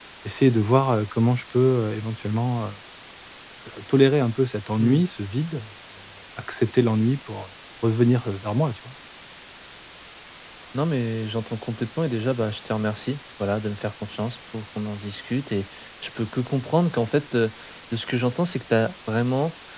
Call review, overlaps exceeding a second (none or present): none